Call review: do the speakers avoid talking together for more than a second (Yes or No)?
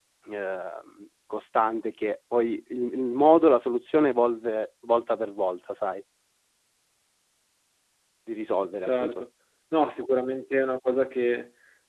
Yes